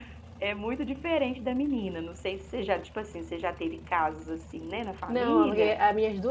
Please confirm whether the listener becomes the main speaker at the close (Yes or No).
Yes